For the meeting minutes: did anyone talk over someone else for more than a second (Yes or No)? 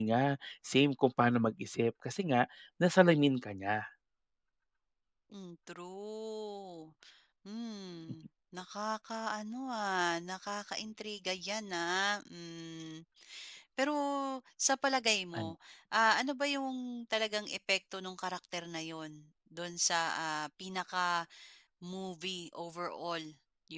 No